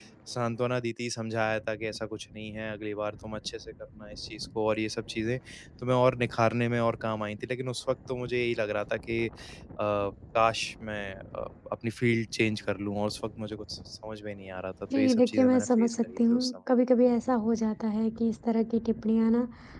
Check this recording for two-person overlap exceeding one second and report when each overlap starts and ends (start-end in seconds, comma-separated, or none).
15.0-16.5